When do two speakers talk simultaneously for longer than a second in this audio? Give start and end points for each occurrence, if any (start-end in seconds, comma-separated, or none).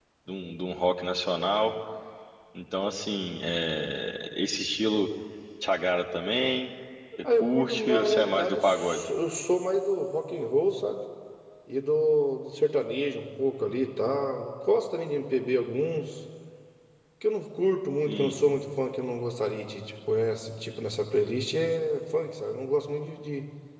7.4-9.0